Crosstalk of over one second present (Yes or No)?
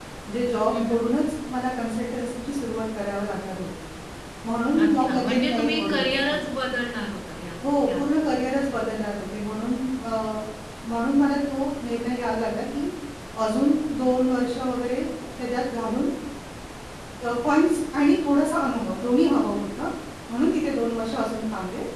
Yes